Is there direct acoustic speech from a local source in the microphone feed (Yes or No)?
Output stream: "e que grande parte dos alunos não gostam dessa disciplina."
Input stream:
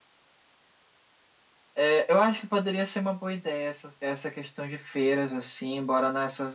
Yes